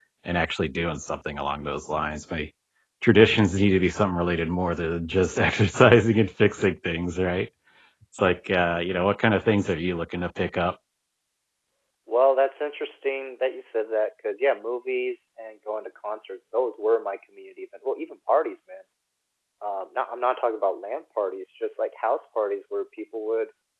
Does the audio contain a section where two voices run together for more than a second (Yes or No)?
No